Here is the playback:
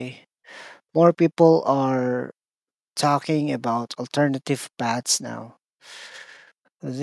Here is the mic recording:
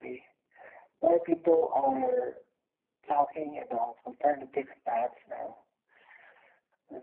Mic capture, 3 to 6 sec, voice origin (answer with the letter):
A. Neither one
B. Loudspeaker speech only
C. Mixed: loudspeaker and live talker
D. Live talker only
B